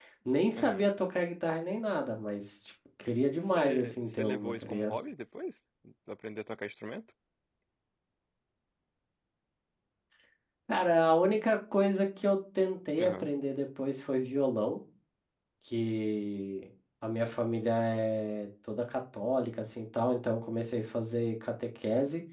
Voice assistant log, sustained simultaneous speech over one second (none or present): present